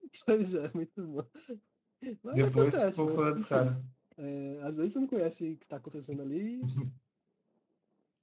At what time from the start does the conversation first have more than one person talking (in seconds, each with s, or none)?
2.3 s